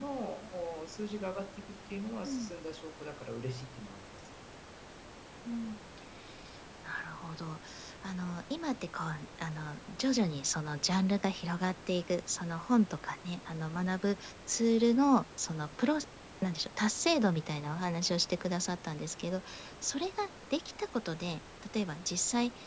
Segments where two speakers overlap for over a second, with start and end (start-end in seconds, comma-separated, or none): none